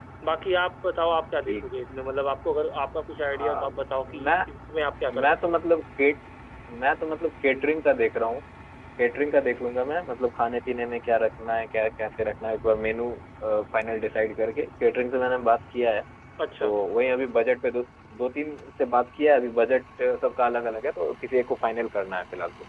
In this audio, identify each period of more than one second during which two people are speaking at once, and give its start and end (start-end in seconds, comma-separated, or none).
none